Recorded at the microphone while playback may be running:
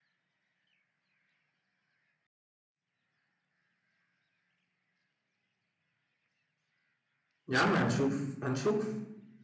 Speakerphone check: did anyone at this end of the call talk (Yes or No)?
Yes